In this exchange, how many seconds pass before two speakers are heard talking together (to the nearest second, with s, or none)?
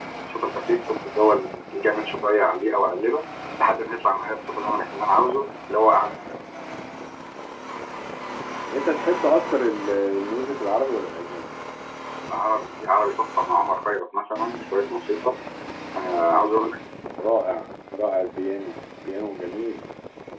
none